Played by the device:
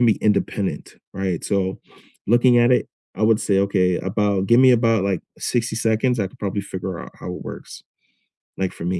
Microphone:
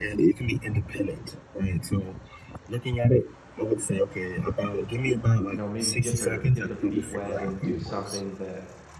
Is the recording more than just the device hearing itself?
Yes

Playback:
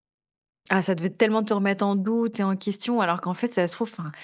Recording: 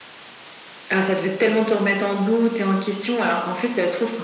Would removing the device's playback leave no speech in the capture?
Yes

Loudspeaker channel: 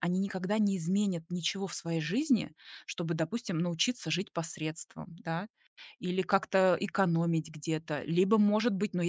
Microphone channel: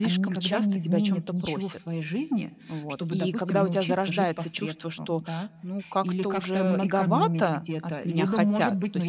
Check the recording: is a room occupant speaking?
Yes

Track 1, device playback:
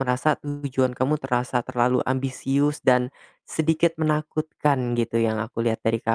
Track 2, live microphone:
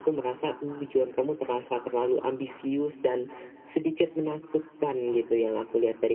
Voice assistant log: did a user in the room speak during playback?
No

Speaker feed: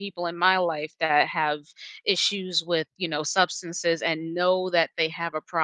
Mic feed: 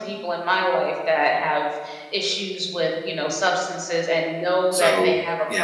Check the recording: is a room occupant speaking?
Yes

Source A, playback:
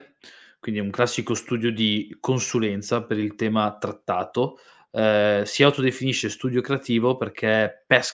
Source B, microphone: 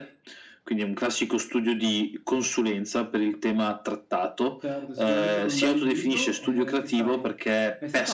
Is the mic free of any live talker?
No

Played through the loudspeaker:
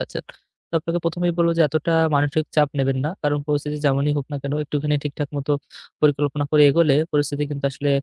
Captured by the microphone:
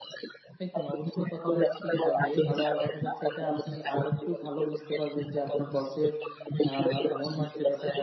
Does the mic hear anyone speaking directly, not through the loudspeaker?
Yes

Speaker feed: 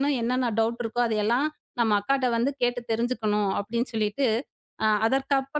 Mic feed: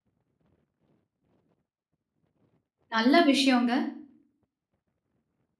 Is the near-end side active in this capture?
Yes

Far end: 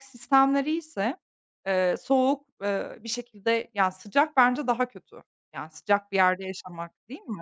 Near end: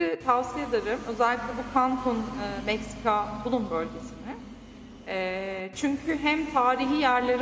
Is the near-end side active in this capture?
Yes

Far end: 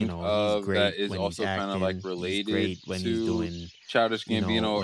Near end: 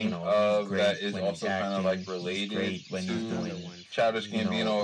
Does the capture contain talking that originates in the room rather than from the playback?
Yes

